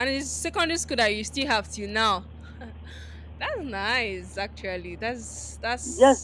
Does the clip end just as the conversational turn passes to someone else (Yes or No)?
Yes